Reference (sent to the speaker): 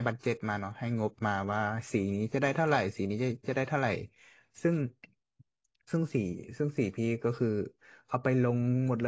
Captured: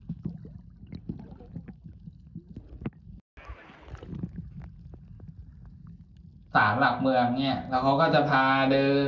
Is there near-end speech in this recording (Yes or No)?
Yes